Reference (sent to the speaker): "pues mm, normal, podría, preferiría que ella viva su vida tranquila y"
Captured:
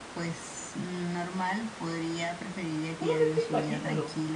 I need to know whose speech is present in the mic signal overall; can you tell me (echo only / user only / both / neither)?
both